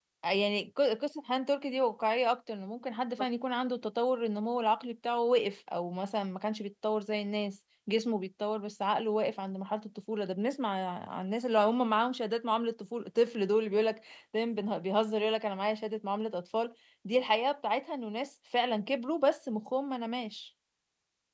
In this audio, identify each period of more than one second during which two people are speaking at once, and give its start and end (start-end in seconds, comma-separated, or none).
none